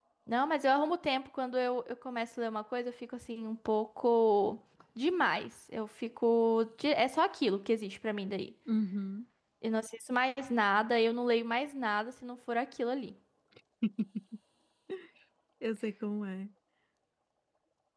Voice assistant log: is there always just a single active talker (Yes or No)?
Yes